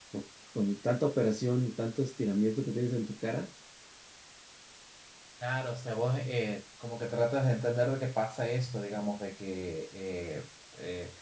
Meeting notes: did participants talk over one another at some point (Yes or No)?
No